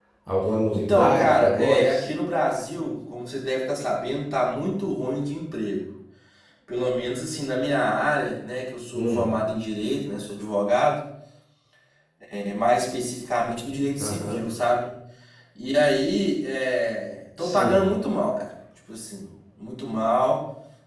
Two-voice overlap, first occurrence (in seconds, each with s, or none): 0.7 s